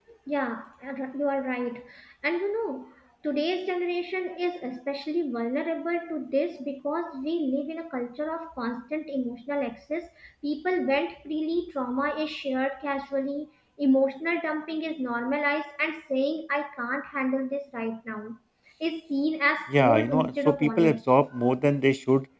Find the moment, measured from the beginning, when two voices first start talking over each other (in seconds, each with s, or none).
19.7 s